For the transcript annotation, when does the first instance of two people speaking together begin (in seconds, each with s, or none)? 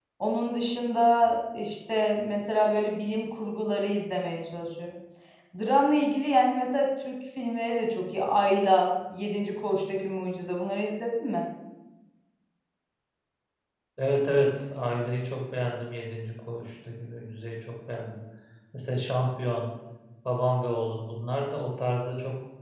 none